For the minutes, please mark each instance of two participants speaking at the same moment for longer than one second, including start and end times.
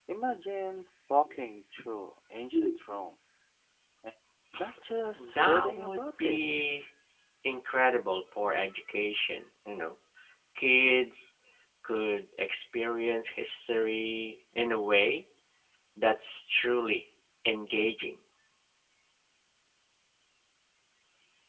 5.2-6.4

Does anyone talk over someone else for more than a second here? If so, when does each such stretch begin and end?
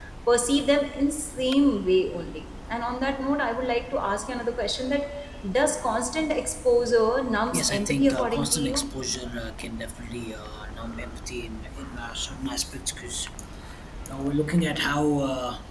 7.5-8.8

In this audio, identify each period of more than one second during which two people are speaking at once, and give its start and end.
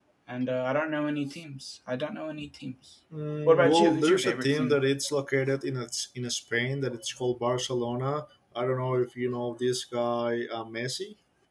3.5-4.8

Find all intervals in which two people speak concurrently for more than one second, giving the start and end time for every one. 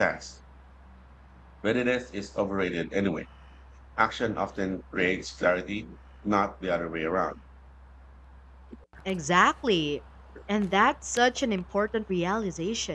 none

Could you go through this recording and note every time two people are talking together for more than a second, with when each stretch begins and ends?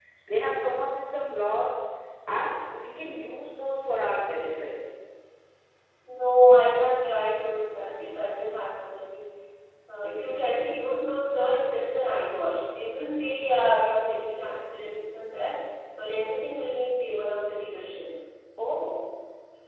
none

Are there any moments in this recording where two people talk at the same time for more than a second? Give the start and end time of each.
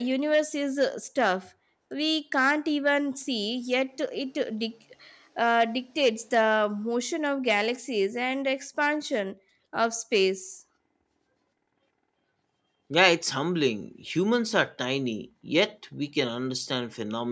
none

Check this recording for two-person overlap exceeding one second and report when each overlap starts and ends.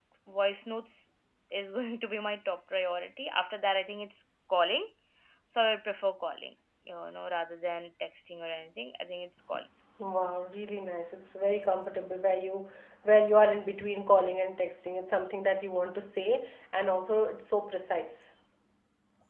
none

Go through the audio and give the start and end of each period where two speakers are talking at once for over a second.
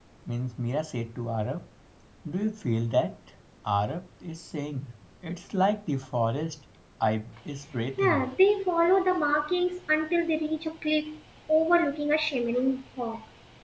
none

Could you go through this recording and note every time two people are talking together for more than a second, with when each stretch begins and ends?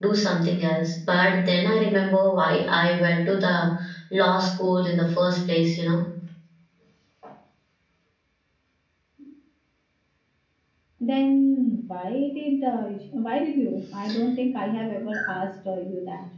none

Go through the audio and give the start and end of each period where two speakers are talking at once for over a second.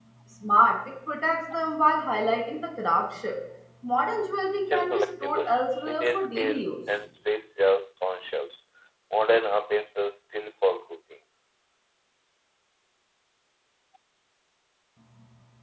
4.5-6.8

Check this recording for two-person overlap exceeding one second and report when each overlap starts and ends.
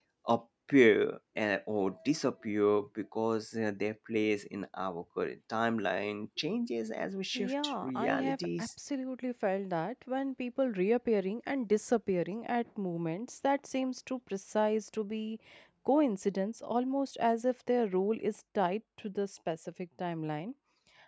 7.4-8.7

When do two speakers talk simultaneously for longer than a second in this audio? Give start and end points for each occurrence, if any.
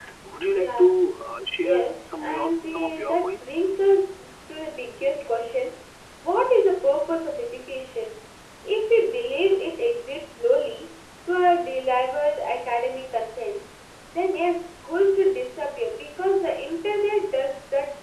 1.6-3.5

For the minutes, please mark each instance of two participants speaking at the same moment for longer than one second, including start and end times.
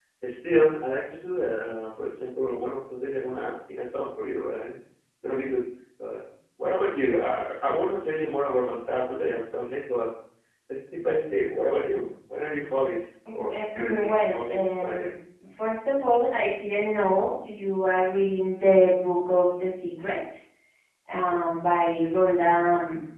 13.3-15.1

